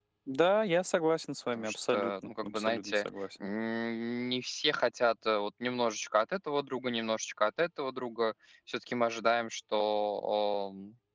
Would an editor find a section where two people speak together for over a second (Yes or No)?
Yes